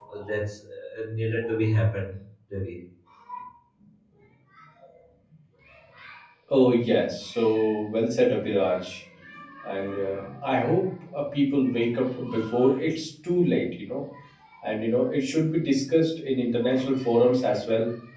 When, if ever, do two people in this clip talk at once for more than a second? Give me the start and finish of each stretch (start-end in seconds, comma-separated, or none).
none